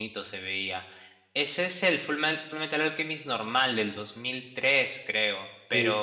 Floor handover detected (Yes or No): No